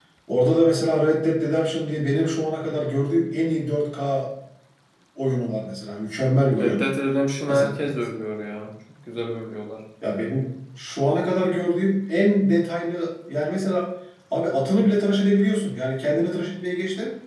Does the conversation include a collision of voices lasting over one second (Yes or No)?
No